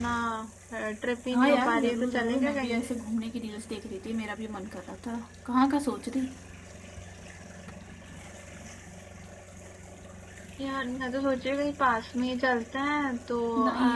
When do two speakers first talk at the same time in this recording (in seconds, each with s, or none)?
1.3 s